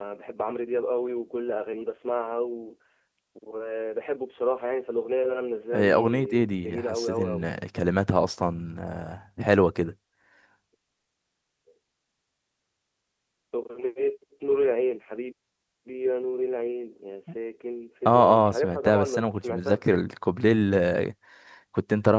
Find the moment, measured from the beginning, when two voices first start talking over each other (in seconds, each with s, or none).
5.7 s